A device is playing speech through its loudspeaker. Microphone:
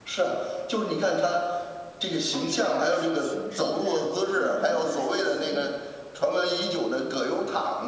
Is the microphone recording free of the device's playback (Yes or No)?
No